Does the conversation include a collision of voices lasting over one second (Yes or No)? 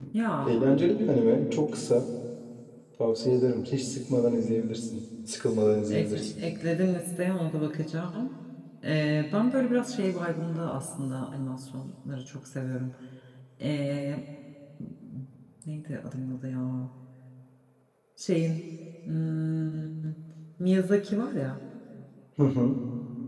No